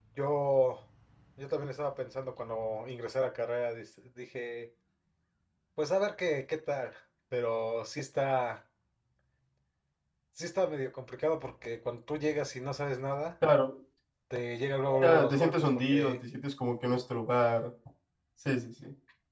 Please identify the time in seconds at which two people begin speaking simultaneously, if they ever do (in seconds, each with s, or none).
15.0 s